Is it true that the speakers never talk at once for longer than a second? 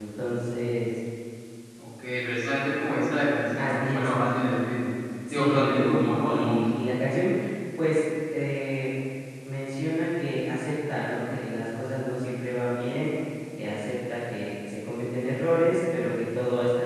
No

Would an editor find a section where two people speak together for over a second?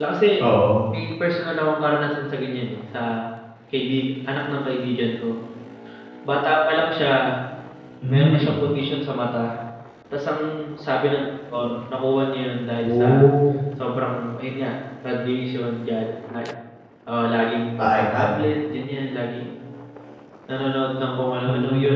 No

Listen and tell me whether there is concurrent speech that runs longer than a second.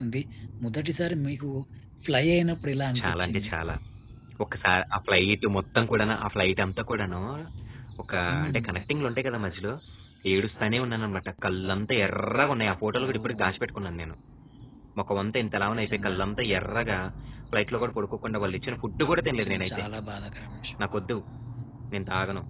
No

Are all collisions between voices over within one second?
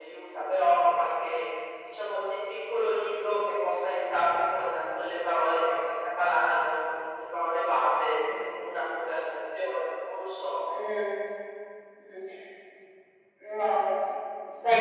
Yes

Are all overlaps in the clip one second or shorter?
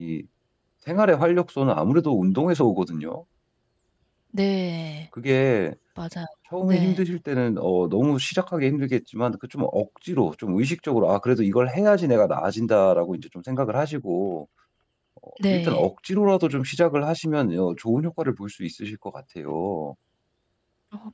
Yes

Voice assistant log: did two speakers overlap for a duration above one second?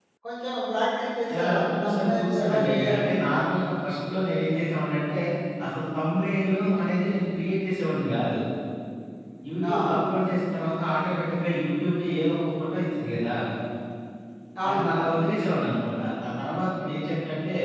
Yes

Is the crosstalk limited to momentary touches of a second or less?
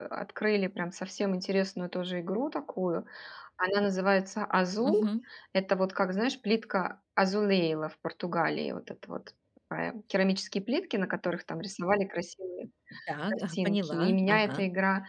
No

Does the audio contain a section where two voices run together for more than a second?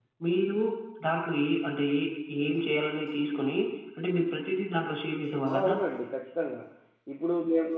No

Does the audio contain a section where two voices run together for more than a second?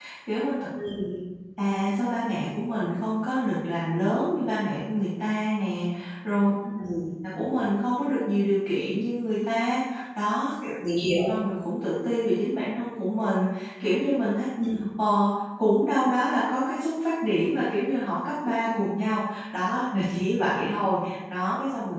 No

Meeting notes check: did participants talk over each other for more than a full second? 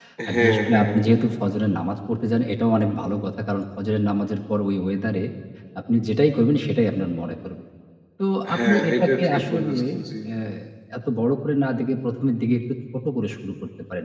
Yes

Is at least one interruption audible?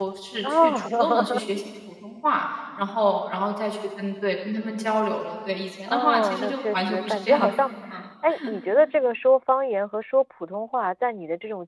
Yes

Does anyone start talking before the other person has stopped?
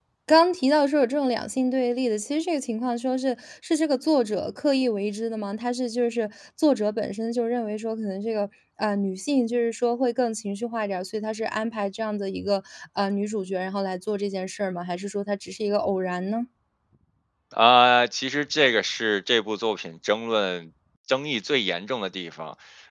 No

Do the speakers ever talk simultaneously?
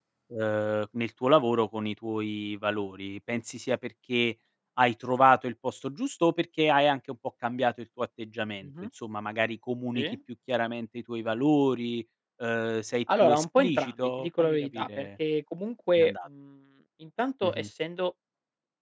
Yes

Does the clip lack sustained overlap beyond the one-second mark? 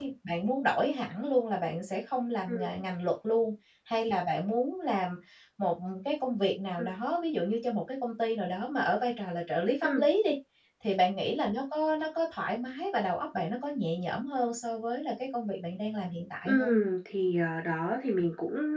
Yes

